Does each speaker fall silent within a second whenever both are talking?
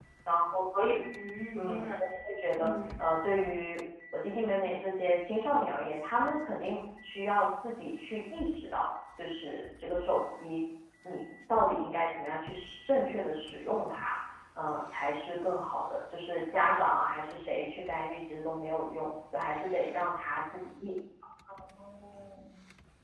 Yes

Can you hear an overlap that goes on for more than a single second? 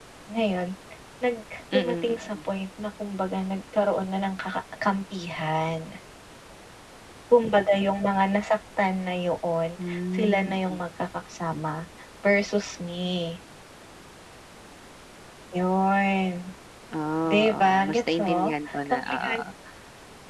Yes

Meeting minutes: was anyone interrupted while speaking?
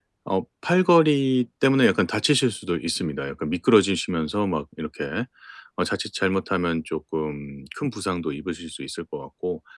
No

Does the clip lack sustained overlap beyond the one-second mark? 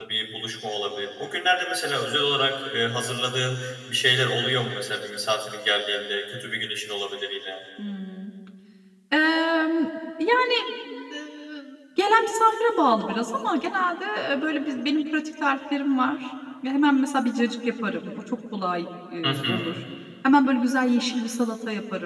Yes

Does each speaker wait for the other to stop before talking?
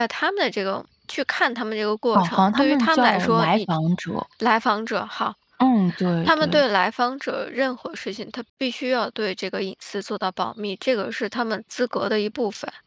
No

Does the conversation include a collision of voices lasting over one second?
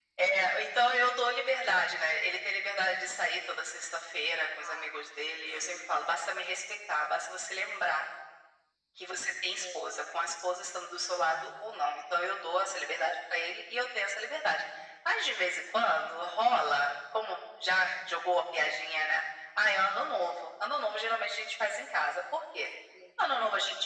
No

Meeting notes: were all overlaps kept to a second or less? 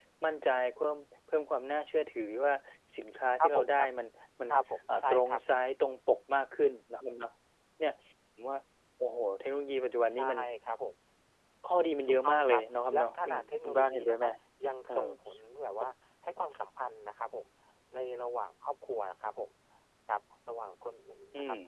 No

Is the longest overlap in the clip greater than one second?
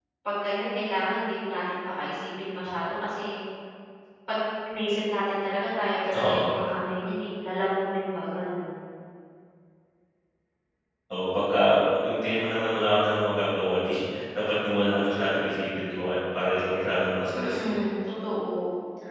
No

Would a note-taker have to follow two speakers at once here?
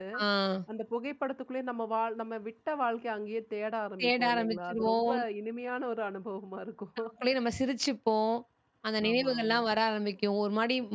Yes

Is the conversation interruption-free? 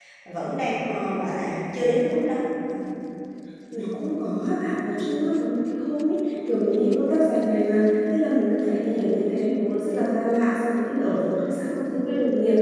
Yes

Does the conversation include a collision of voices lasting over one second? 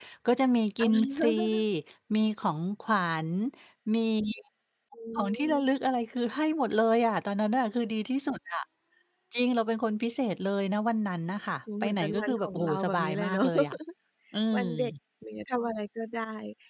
Yes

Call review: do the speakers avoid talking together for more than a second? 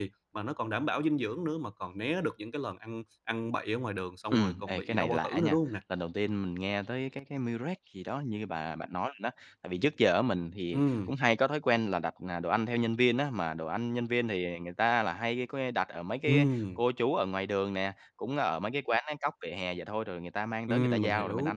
No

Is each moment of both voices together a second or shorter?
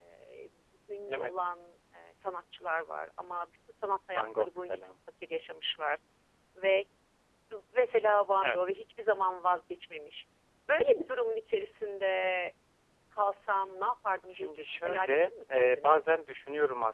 No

